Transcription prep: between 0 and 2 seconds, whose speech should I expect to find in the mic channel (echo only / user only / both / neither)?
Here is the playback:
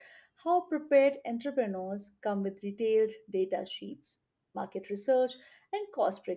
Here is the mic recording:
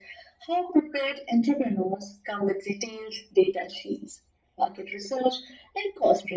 echo only